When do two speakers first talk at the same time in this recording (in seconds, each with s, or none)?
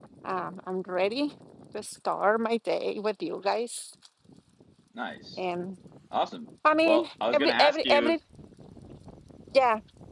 6.8 s